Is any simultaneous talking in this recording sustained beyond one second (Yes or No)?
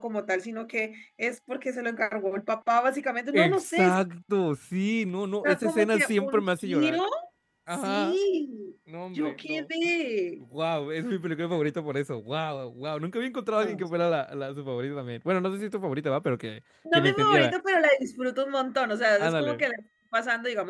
Yes